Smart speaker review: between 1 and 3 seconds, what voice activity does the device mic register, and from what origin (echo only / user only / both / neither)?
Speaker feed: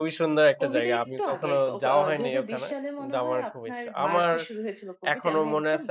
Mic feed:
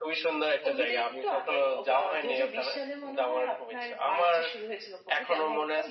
echo only